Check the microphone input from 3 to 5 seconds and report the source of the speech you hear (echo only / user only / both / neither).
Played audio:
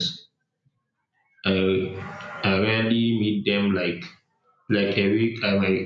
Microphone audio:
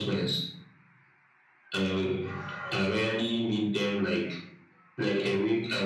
echo only